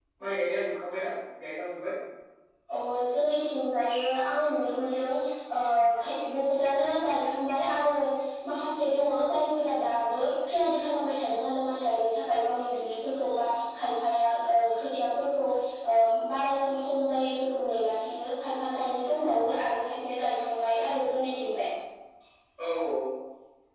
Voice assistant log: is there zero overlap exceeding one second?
Yes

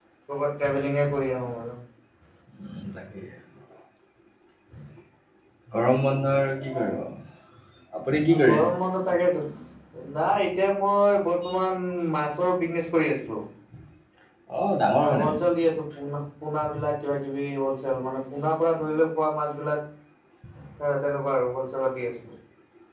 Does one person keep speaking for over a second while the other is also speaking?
No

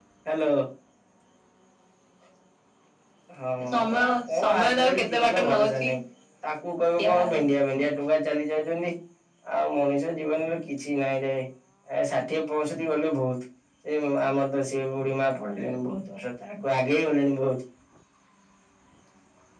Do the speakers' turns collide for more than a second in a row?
Yes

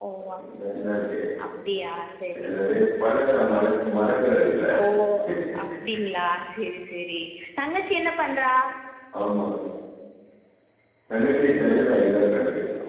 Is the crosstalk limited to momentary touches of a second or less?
Yes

